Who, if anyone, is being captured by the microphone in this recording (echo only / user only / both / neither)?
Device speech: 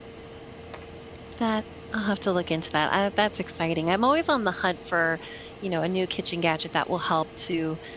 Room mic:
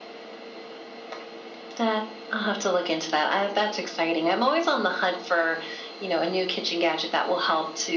echo only